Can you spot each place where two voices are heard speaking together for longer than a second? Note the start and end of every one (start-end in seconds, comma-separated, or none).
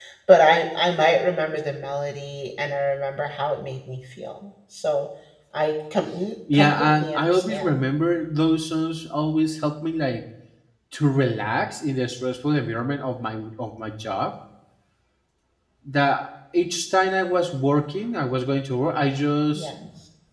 6.5-7.8